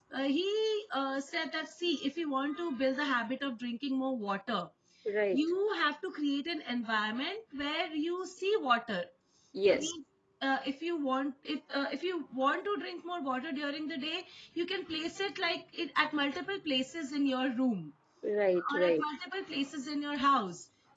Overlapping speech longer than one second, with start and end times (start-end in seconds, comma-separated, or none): none